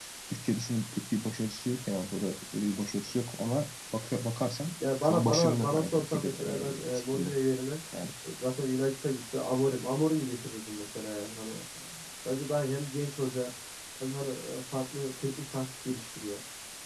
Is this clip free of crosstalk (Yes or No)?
No